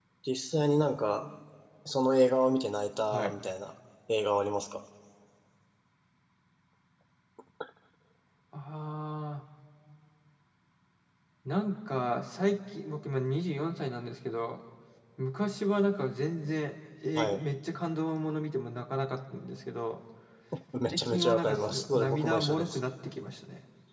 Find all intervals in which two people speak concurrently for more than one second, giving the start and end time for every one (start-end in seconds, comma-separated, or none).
20.9-22.8